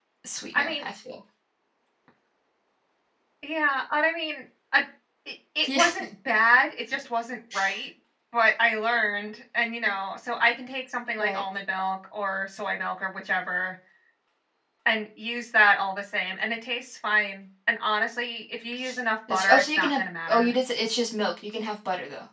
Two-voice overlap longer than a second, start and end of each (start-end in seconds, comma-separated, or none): 19.3-20.5